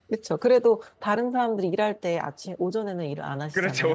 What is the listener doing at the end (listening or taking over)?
taking over